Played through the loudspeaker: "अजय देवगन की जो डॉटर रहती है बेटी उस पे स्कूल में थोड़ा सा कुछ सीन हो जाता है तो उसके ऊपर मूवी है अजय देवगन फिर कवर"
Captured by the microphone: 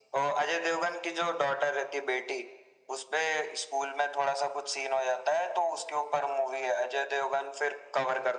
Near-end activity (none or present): none